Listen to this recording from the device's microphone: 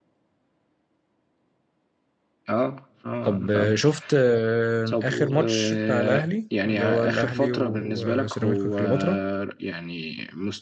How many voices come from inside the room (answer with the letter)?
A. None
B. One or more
B